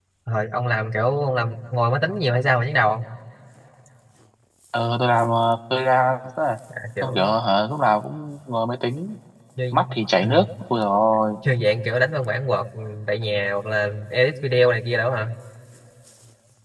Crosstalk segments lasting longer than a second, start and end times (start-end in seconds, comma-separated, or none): none